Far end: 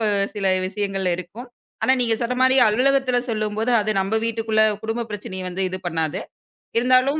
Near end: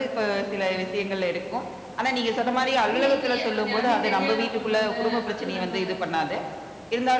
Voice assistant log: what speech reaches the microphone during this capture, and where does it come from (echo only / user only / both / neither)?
both